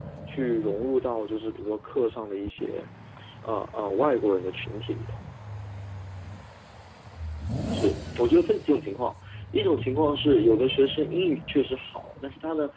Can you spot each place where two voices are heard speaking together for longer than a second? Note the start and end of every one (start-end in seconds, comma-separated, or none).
none